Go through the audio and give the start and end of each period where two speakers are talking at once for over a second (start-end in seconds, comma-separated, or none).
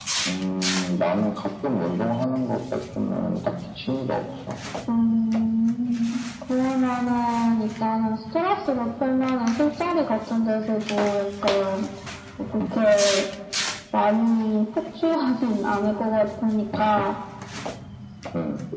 none